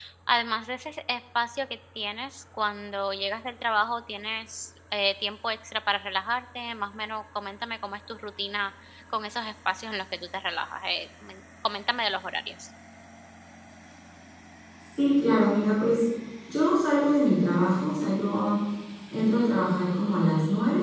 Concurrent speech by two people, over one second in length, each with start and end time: none

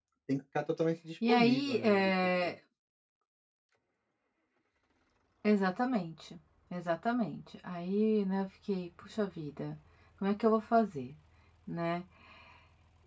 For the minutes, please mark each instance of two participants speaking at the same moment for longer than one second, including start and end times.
1.3-2.6

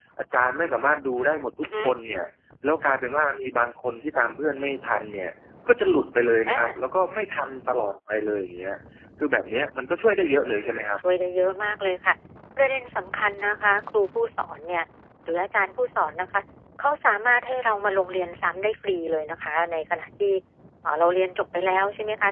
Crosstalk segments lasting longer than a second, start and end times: none

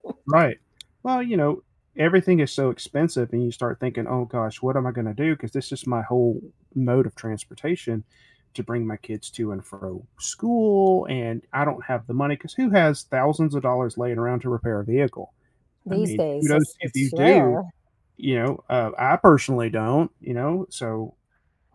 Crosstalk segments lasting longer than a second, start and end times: 15.9-17.6

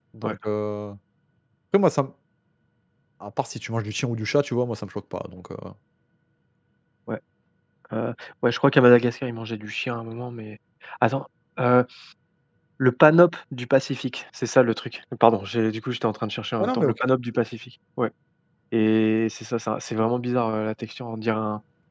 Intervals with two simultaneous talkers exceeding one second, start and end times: none

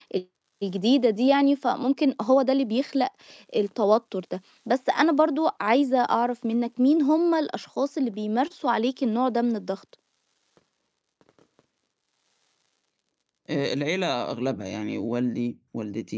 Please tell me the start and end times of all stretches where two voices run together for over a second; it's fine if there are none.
none

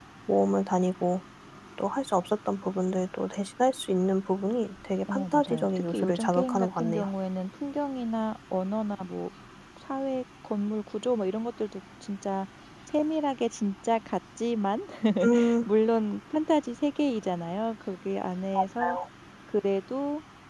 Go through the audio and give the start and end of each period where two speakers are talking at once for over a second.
5.1-7.0

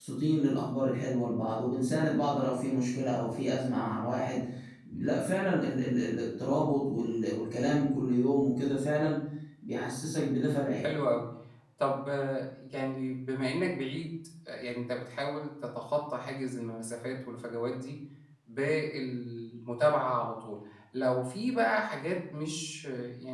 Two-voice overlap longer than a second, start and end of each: none

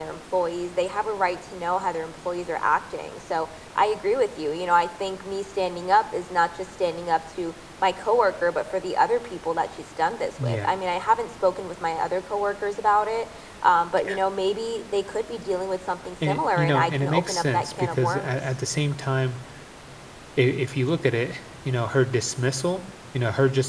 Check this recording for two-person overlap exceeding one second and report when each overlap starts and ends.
16.2-18.4

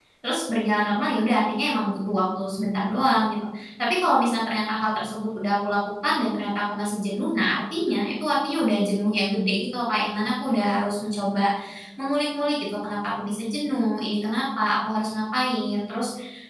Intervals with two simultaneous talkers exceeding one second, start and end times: none

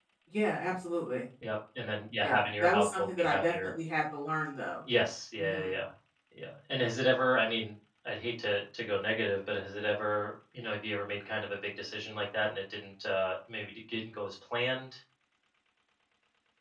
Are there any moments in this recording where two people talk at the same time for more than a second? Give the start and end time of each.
2.2-3.7

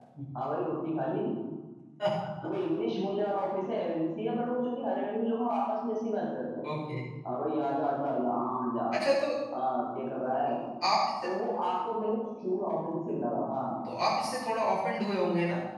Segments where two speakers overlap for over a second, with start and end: none

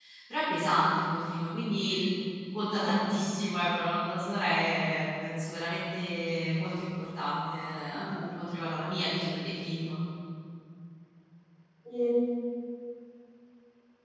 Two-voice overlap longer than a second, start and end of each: none

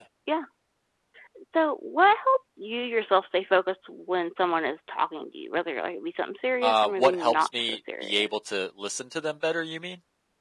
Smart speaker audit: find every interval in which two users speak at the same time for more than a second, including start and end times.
6.6-8.3

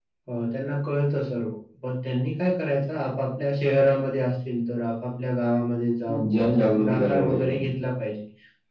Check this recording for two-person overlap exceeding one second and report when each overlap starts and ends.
6.1-7.7

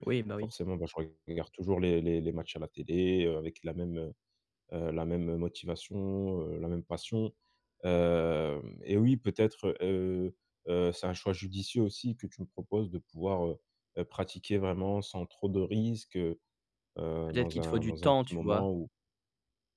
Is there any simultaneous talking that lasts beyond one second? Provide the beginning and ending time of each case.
17.3-18.7

